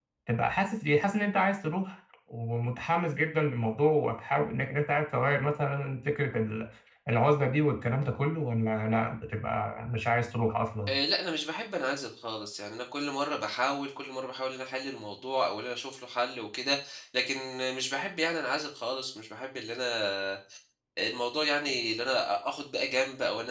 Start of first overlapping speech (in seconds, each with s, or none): none